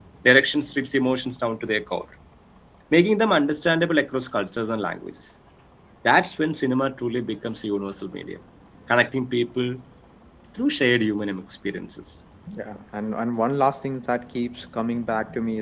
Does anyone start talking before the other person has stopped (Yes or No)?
No